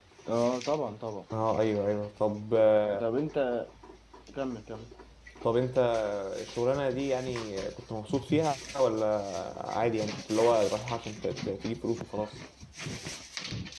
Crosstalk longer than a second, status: none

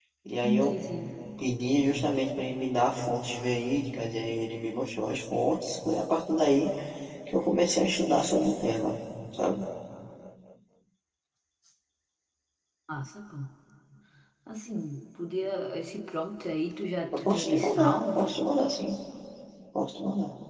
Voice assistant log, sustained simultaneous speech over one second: present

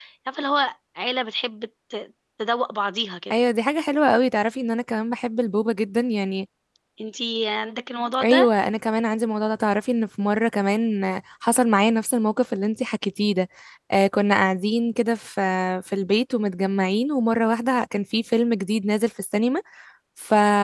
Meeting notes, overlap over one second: none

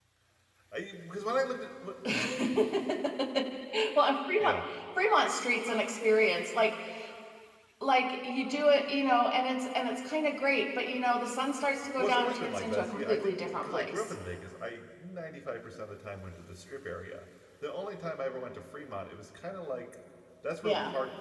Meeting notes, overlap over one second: present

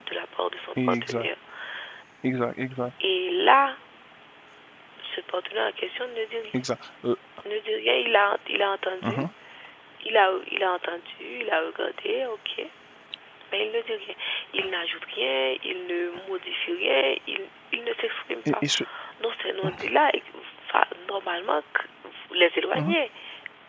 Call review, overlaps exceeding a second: none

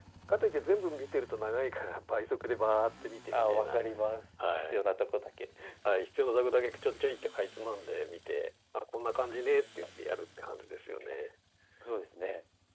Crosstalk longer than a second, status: none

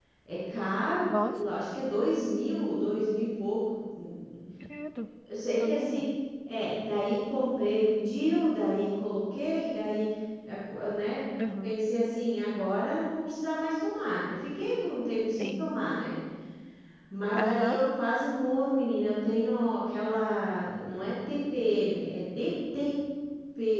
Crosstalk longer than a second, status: none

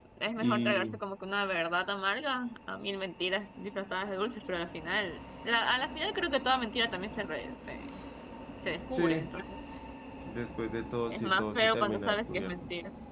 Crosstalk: present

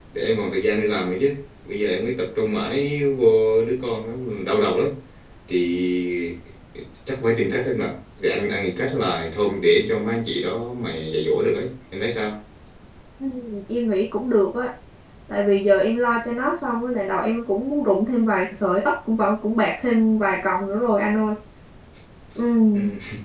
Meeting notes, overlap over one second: none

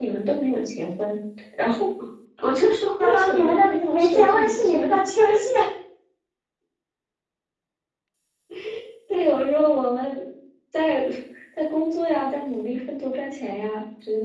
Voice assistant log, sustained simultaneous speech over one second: present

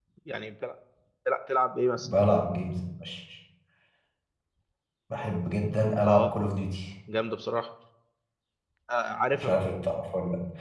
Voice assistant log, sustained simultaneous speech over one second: none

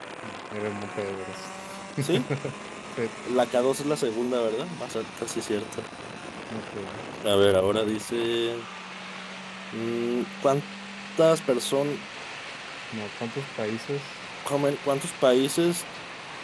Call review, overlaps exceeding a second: none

